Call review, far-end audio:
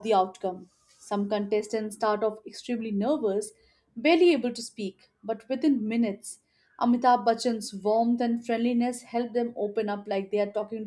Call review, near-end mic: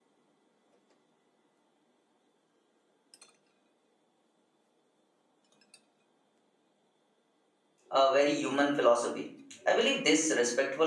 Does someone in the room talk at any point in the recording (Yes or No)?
Yes